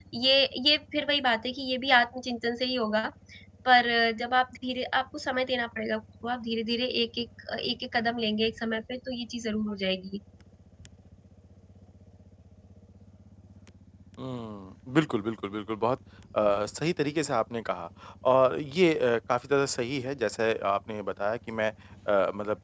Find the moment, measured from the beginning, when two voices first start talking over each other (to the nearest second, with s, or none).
none